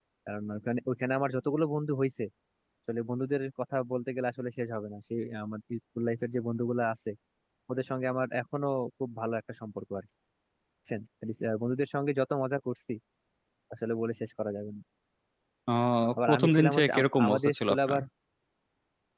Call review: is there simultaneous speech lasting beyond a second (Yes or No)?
Yes